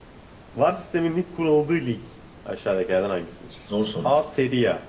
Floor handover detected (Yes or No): No